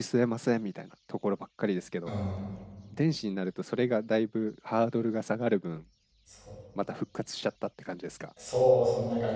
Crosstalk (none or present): none